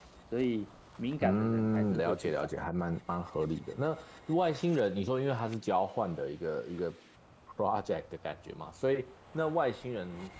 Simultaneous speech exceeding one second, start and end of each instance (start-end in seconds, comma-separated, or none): 1.2-2.6